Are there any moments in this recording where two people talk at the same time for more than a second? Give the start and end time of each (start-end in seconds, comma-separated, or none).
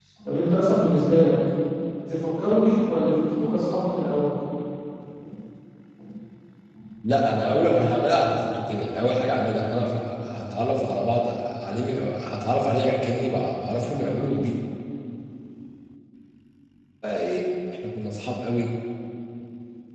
none